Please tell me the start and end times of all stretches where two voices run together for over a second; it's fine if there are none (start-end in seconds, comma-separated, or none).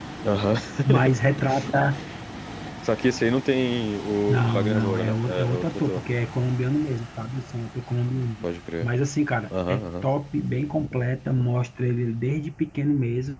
4.3-6.1